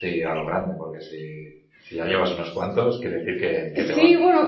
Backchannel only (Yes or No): No